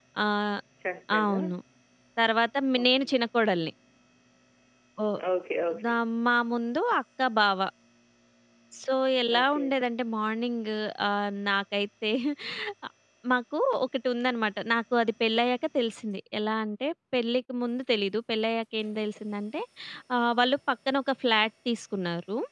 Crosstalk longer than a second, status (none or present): none